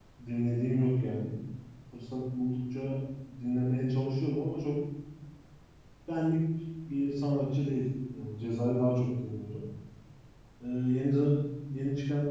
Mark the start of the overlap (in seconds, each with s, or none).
none